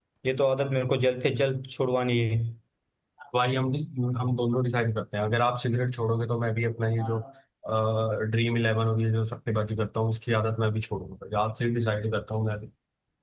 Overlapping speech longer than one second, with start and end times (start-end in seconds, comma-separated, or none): none